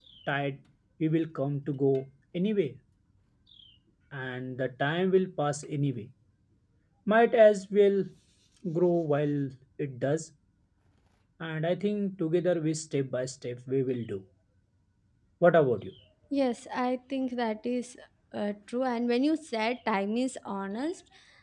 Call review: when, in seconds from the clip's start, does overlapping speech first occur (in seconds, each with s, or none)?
none